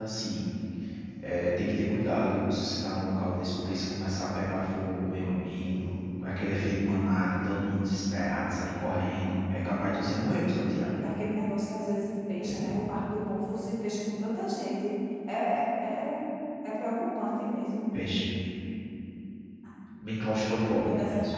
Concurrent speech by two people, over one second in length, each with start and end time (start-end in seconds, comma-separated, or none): 8.9-10.4